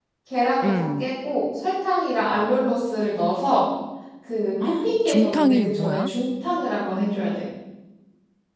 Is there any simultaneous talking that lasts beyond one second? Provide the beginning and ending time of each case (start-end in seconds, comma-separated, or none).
4.6-6.1